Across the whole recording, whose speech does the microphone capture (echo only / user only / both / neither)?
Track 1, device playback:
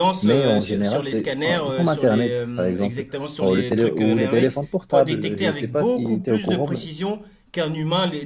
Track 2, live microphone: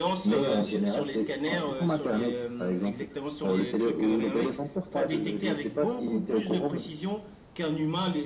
echo only